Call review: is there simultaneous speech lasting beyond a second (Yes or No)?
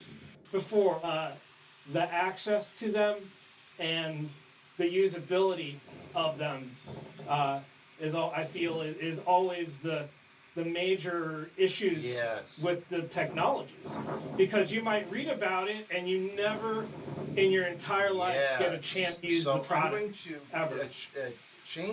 Yes